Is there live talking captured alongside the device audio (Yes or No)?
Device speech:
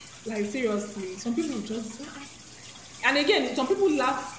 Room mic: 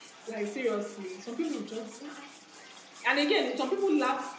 No